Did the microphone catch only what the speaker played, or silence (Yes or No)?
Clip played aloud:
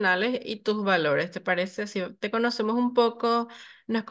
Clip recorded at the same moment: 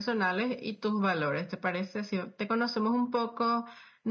Yes